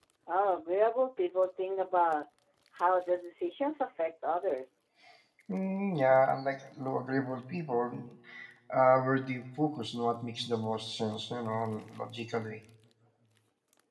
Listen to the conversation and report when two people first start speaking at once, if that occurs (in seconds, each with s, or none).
none